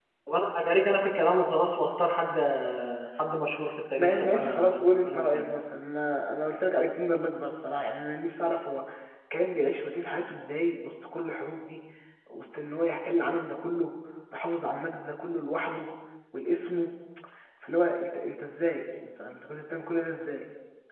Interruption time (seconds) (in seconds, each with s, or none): 4.0 s